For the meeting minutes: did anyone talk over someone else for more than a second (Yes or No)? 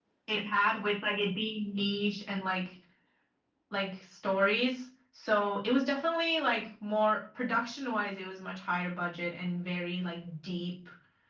No